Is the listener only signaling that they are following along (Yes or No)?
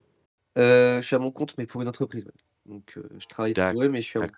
No